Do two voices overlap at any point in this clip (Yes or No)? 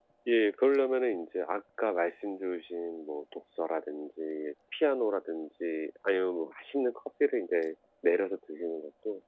No